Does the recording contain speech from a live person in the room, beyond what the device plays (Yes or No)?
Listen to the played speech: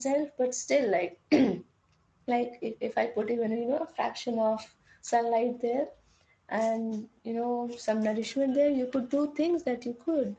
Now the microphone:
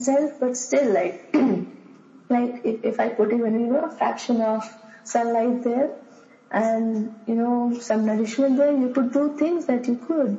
No